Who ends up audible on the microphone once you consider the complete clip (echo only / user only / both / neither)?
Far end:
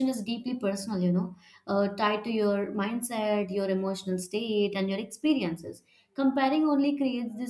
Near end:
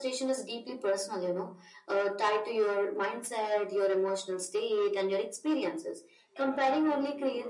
both